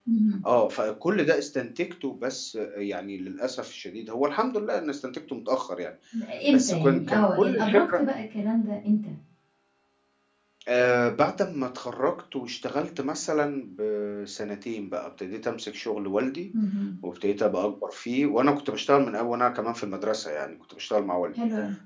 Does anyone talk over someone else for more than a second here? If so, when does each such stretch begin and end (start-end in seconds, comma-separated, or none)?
6.5-8.0